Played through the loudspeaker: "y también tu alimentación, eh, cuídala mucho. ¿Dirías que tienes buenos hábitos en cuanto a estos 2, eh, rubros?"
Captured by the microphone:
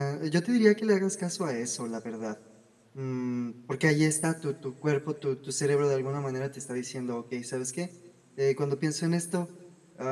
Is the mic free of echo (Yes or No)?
Yes